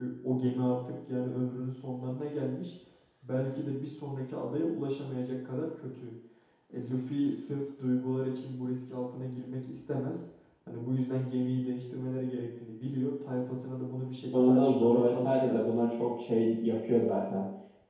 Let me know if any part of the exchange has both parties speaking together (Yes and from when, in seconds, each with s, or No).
Yes, from 14.3 s